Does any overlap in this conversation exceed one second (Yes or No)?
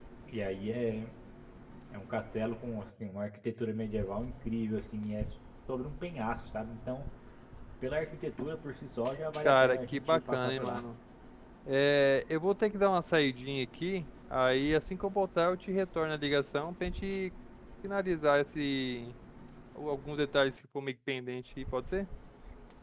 Yes